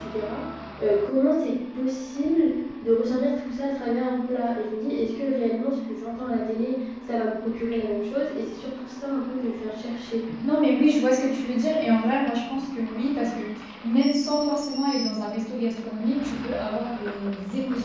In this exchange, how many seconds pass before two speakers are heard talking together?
none

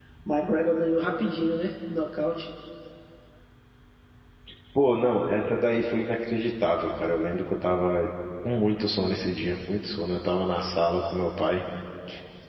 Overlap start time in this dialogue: none

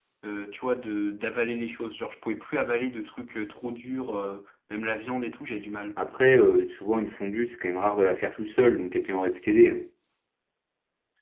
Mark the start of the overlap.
none

